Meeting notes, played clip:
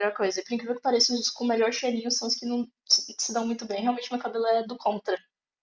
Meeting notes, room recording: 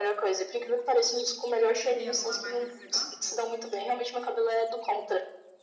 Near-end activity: present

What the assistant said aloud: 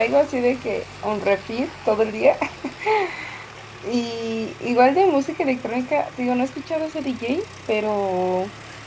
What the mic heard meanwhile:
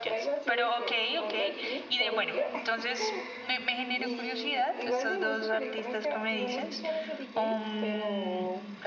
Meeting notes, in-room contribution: present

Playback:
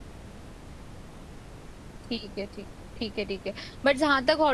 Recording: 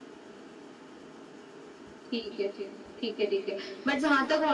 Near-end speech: none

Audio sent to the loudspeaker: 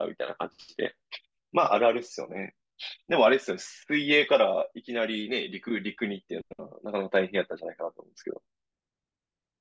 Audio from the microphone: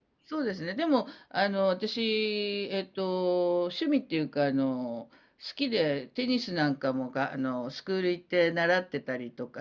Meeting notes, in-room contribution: present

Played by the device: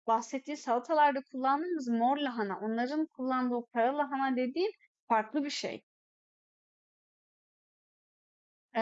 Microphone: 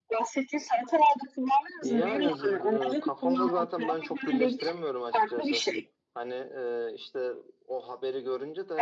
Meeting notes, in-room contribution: present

